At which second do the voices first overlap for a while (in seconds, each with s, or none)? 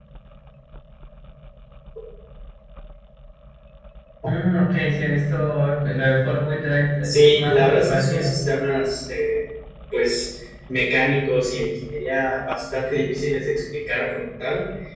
7.0 s